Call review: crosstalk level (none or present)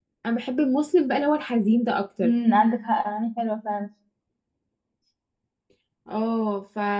none